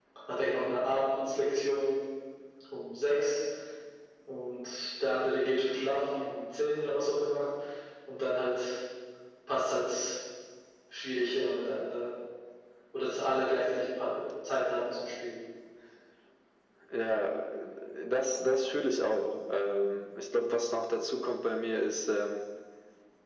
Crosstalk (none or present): none